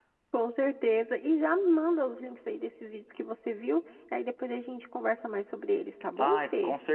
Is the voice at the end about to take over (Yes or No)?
Yes